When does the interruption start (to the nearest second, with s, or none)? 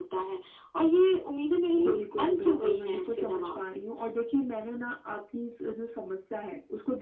2 s